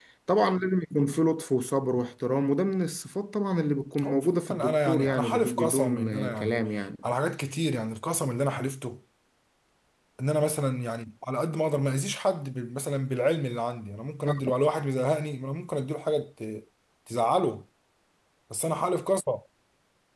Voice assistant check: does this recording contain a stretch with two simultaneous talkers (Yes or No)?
Yes